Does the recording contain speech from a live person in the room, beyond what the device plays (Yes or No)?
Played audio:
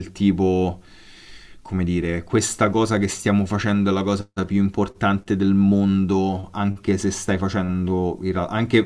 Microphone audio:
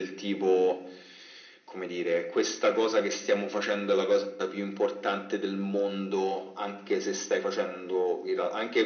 No